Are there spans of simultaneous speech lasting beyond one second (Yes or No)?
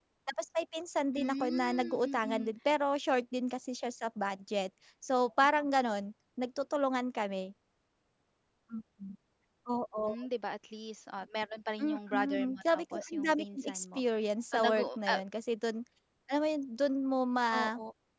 Yes